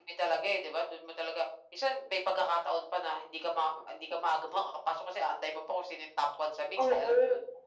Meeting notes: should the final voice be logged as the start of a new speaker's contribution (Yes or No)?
Yes